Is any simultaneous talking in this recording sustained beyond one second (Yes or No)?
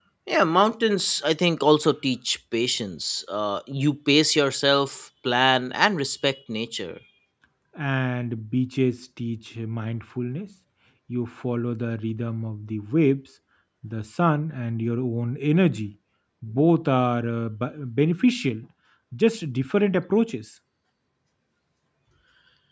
No